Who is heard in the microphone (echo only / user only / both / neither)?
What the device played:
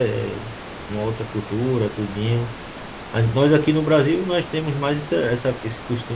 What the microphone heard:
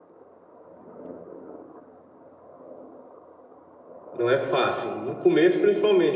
user only